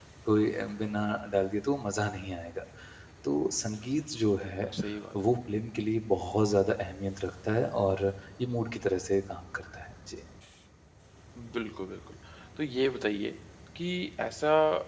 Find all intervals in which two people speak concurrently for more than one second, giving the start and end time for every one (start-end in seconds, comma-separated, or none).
none